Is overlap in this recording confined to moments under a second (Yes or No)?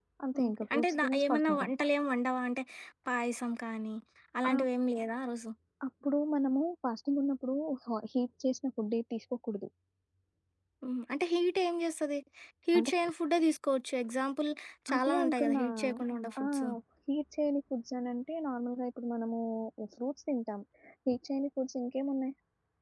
No